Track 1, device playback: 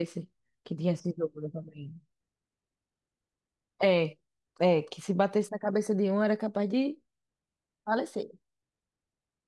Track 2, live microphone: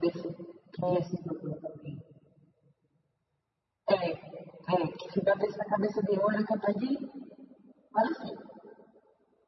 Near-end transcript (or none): Ó.